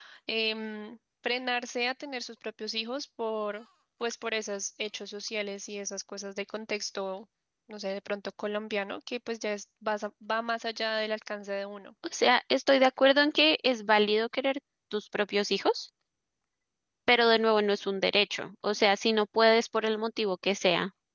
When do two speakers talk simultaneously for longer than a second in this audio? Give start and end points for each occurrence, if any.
none

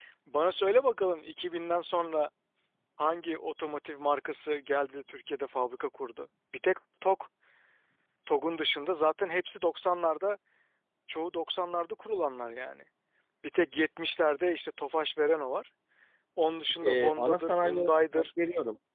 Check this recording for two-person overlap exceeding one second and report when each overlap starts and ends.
16.8-18.3

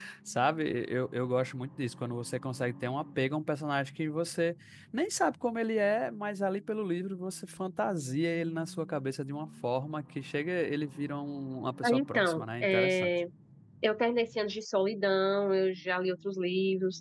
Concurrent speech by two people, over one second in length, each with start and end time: 11.8-13.1

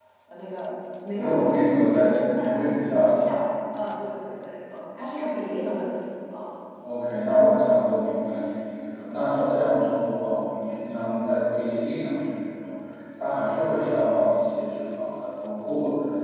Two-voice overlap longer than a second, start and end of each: 1.1-3.4

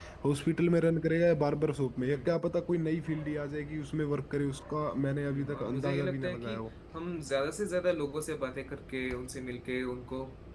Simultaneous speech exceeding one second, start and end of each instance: 5.3-6.5

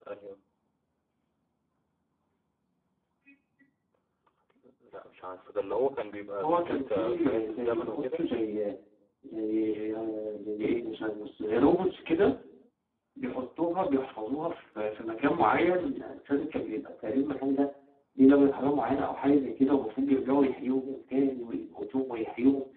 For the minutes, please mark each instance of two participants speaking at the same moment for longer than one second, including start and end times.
6.4-8.2

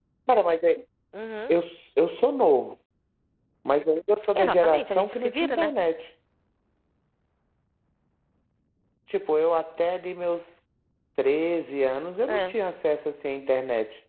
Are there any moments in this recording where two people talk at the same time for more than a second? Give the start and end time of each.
4.3-5.7

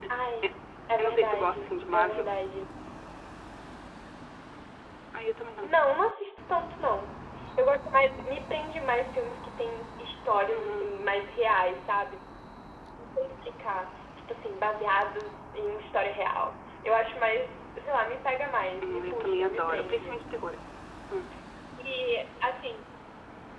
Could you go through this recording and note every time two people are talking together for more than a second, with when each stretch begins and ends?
1.0-2.3, 18.8-20.1

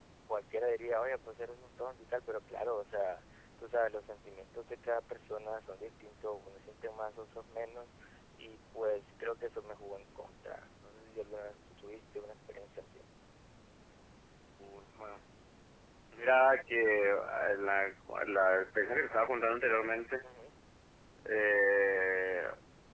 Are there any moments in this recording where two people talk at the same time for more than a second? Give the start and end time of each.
none

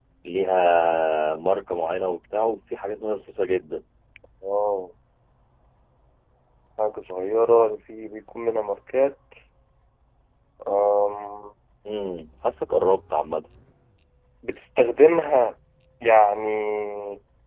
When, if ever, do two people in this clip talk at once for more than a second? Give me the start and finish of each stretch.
none

